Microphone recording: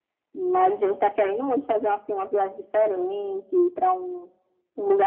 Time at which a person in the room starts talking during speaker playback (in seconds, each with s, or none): none